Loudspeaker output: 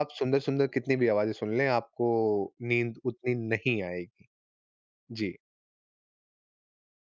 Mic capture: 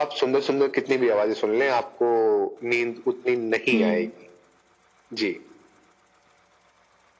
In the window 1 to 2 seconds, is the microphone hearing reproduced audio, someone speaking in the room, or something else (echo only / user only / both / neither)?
echo only